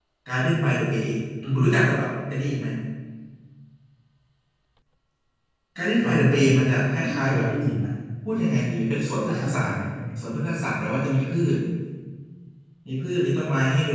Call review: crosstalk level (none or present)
present